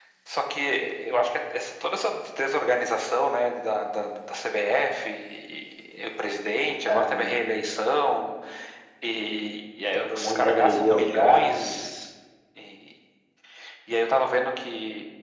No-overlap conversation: No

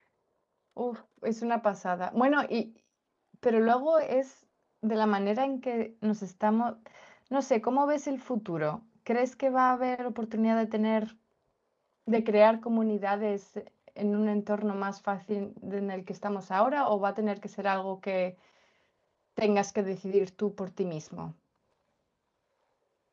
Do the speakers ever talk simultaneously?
No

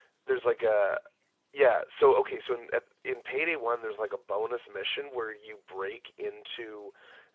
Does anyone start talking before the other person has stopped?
No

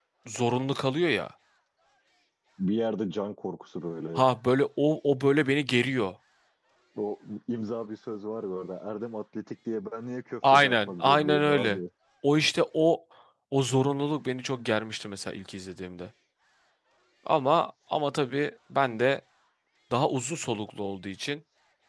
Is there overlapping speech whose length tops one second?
Yes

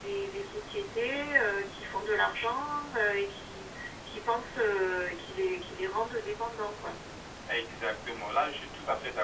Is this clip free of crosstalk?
Yes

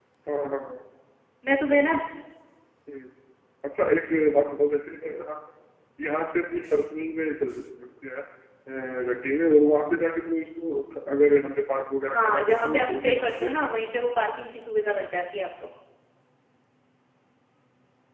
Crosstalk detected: Yes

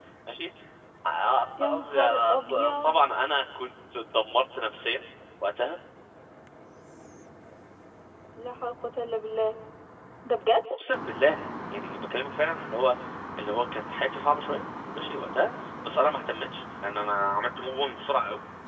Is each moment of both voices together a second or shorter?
No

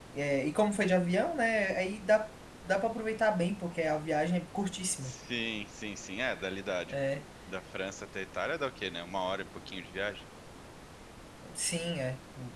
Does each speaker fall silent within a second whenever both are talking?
Yes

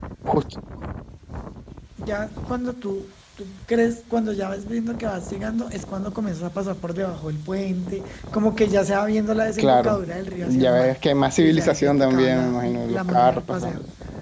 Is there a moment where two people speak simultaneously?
Yes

